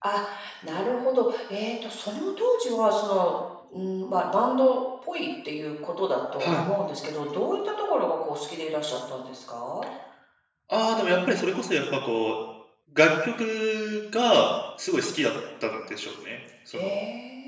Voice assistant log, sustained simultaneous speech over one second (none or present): none